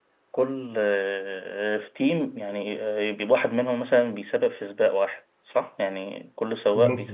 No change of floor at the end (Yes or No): No